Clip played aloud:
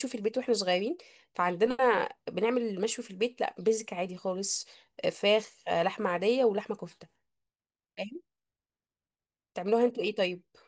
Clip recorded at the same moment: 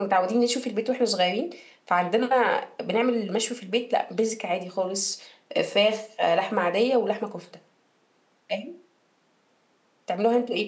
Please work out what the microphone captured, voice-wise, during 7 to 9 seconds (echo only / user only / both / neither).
echo only